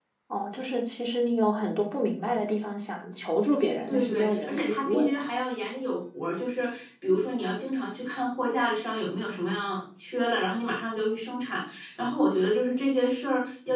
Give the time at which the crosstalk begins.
3.9 s

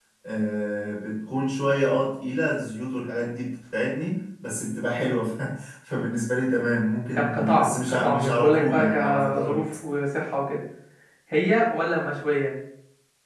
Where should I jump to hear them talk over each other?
7.1 s

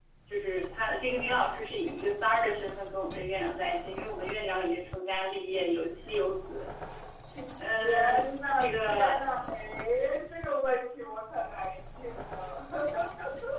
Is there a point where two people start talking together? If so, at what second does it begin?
7.8 s

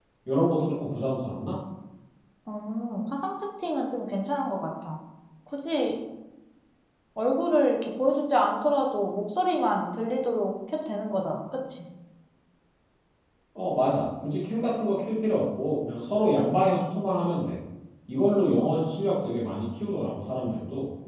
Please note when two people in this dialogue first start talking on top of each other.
none

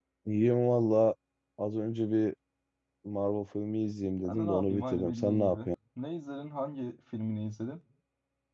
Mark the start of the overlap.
4.2 s

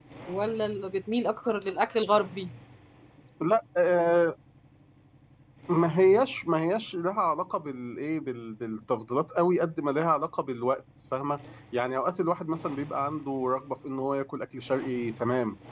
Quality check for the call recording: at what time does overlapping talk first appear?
none

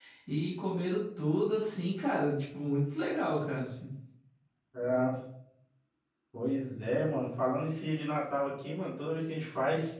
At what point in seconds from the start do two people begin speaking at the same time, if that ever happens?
none

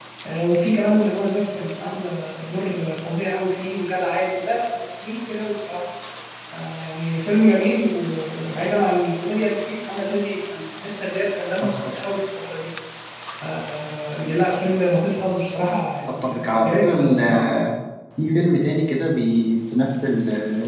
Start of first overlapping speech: 16.1 s

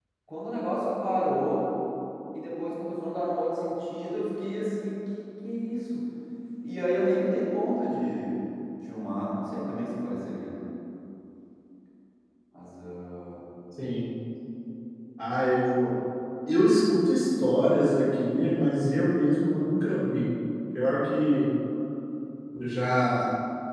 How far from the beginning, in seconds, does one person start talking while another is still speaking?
none

